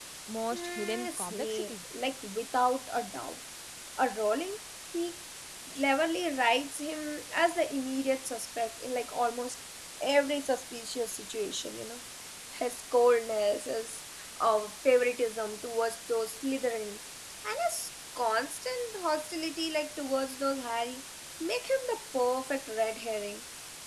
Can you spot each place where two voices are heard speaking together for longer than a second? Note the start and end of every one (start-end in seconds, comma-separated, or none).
0.5-1.7